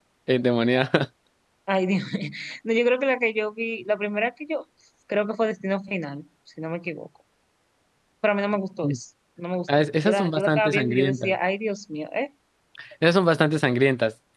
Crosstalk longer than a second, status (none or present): present